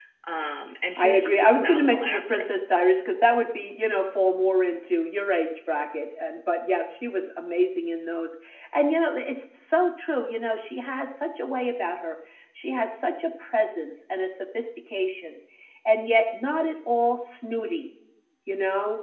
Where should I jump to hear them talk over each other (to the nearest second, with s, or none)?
1 s